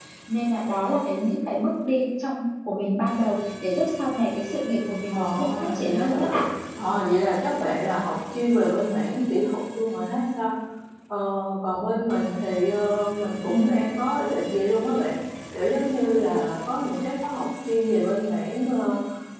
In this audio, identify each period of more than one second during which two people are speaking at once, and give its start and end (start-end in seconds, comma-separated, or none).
5.1-6.4